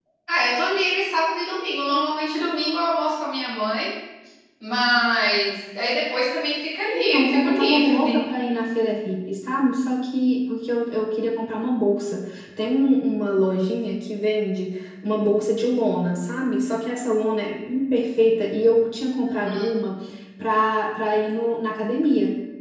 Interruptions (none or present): present